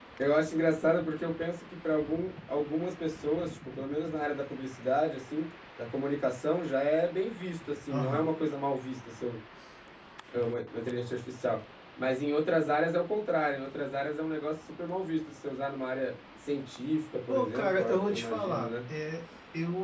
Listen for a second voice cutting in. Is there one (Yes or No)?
Yes